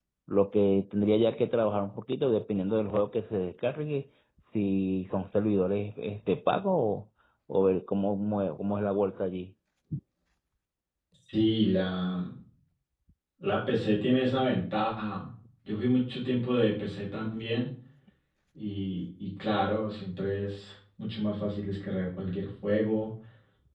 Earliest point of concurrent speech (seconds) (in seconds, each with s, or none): none